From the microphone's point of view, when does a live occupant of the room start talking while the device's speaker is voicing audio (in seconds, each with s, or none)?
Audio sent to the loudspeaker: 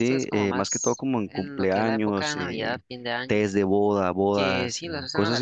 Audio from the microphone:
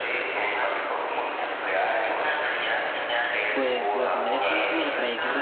3.5 s